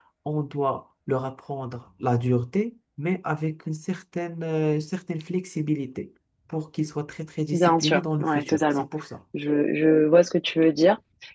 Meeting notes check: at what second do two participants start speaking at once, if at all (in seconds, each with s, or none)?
7.5 s